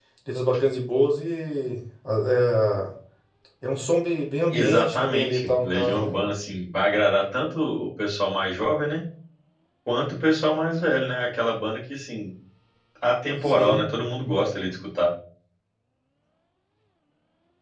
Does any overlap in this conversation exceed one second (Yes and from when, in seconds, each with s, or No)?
Yes, from 4.5 s